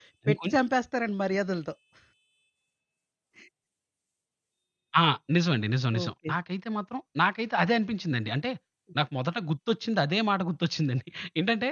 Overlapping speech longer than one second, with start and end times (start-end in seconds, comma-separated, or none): none